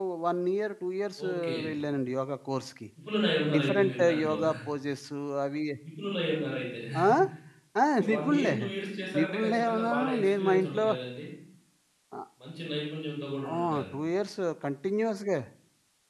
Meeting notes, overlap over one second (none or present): present